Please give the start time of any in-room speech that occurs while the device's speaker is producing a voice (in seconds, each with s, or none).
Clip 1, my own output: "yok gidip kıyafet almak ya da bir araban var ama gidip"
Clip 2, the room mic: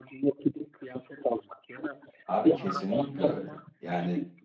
2.2 s